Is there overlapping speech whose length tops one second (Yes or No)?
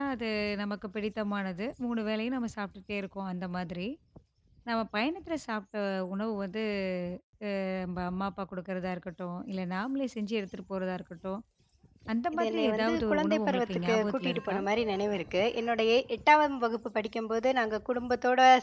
Yes